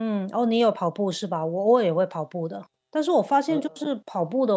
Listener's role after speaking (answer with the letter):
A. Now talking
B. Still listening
B